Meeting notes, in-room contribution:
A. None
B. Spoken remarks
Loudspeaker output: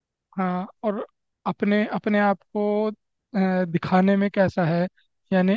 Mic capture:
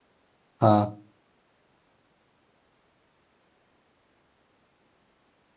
B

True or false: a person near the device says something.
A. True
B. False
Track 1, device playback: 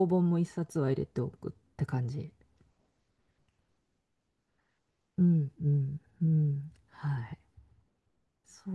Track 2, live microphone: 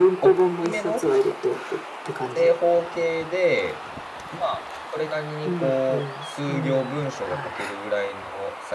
A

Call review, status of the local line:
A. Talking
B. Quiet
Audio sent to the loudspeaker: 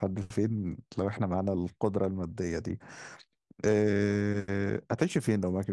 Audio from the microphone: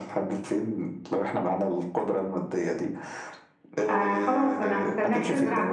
A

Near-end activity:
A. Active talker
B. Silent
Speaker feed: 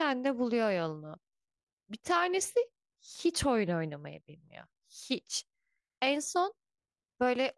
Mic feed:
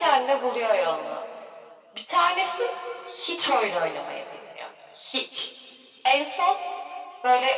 B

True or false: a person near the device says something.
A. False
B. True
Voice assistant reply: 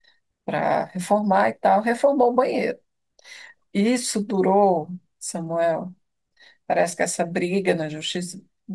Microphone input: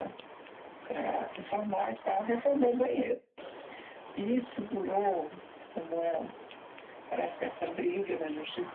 A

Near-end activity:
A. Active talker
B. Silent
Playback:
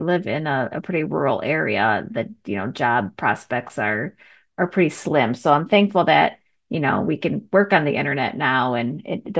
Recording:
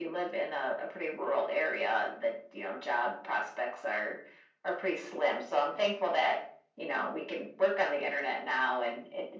B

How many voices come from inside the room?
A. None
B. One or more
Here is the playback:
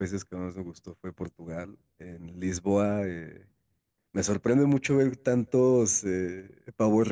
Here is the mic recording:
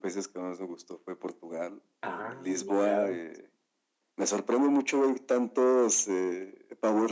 B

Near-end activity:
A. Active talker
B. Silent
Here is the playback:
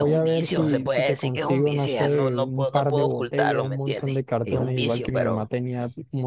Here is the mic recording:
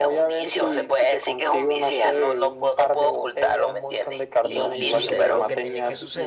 A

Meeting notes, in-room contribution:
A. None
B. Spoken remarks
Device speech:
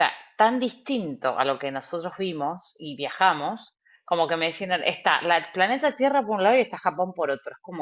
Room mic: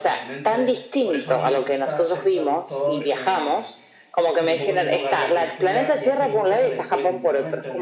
B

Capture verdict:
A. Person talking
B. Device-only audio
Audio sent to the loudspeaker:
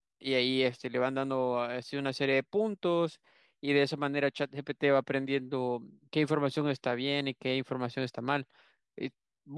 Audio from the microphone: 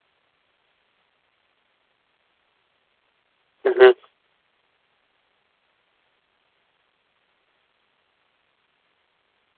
A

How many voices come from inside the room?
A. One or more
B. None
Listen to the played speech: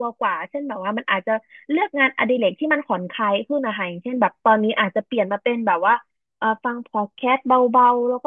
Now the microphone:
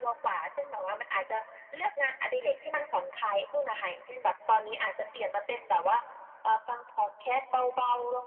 B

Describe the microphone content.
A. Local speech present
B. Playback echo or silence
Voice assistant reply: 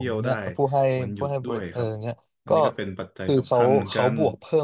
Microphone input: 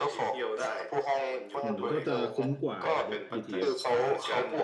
A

